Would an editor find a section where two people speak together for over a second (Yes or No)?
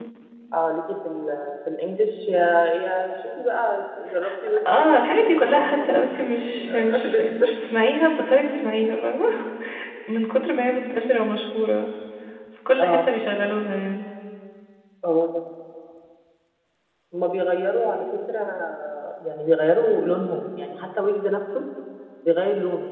Yes